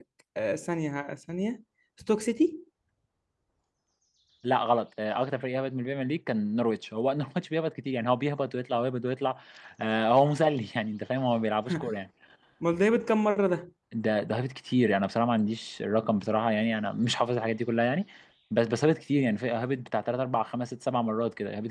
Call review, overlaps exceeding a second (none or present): none